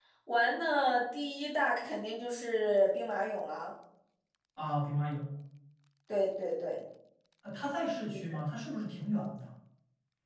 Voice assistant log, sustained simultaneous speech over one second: none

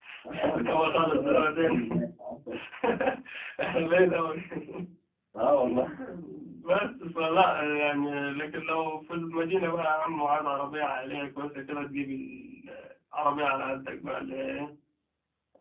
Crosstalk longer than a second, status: present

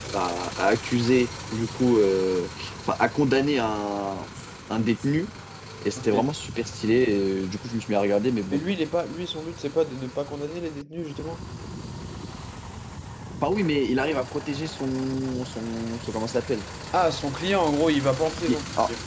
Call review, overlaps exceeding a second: none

